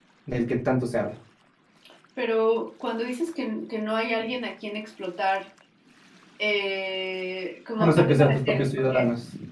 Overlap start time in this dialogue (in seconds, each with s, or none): 7.8 s